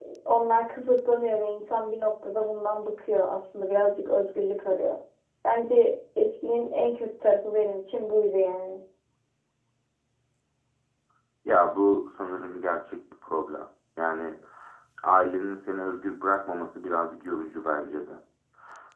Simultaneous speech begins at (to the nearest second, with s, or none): none